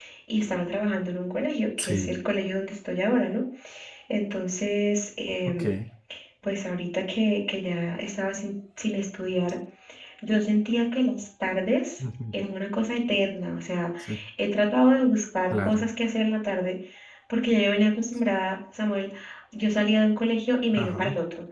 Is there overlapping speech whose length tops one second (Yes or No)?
No